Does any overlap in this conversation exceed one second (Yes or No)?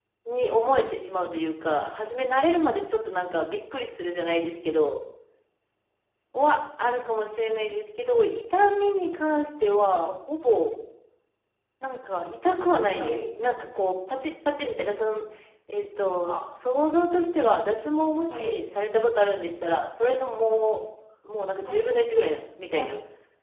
No